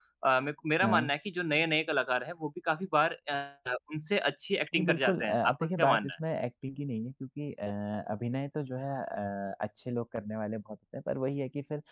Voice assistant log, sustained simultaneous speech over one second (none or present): present